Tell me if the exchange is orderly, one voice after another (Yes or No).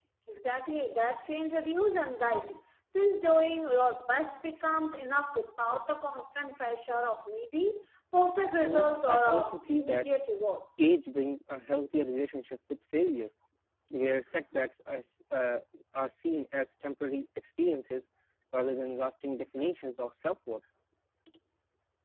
No